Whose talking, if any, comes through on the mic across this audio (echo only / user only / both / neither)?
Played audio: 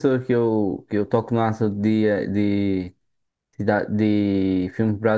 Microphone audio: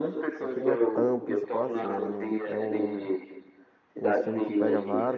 both